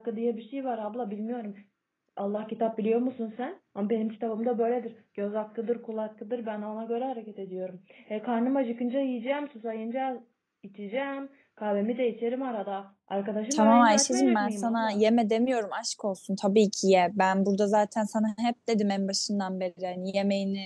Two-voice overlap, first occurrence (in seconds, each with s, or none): 13.5 s